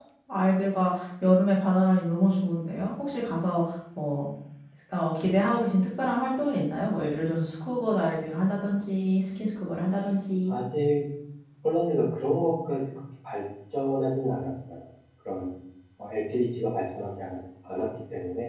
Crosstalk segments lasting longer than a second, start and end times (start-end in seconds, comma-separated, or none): none